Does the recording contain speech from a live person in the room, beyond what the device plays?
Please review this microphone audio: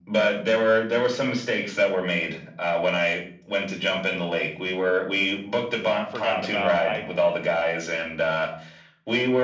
Yes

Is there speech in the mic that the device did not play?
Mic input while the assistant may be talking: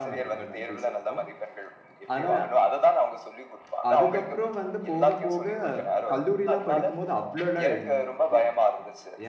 Yes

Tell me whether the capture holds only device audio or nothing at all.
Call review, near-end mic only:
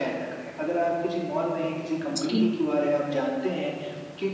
No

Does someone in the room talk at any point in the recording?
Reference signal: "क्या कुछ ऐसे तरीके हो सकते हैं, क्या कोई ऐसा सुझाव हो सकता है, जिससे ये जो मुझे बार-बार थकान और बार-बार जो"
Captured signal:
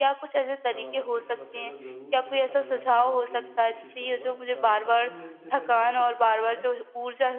Yes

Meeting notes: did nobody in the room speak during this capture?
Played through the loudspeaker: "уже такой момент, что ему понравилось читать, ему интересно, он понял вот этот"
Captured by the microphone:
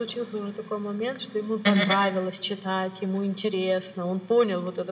No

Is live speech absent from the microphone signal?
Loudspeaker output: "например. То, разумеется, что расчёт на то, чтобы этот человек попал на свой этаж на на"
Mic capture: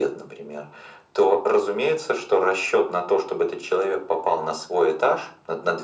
Yes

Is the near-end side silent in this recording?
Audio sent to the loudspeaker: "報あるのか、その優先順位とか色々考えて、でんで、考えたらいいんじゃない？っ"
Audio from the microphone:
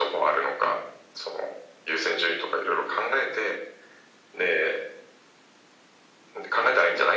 Yes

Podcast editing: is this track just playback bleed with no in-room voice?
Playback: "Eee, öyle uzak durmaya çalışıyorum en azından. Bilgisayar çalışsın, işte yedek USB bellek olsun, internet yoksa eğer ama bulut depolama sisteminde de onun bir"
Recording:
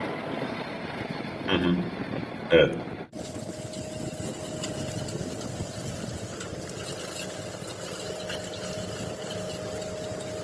No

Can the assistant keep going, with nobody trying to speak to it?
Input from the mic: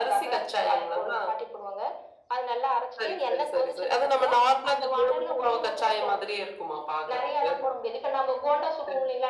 Yes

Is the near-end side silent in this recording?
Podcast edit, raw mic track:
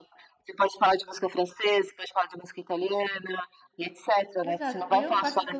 No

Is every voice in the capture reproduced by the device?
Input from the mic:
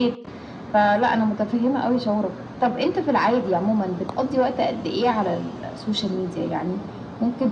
Yes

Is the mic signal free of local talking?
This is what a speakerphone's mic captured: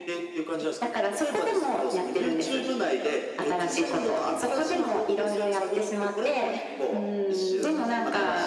Yes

